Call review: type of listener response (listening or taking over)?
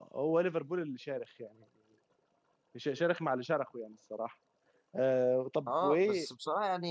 taking over